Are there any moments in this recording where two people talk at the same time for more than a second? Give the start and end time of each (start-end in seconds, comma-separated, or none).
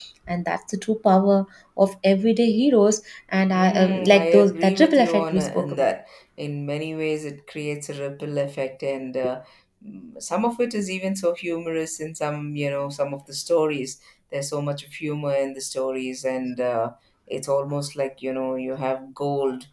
3.5-5.9